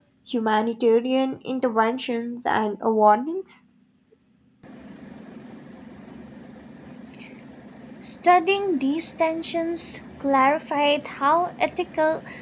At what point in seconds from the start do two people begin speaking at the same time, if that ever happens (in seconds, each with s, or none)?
none